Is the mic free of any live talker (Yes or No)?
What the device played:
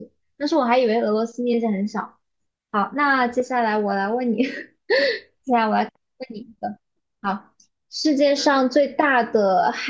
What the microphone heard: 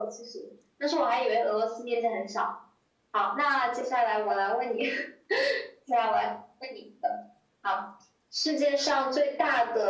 Yes